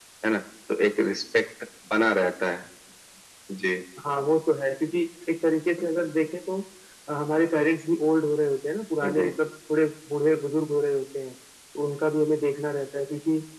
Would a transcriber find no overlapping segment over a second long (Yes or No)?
Yes